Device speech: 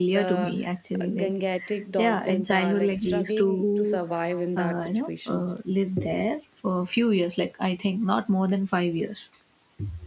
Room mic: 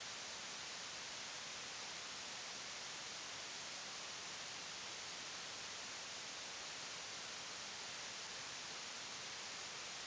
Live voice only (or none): none